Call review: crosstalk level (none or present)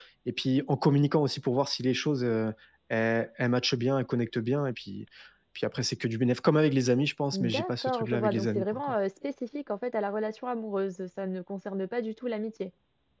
present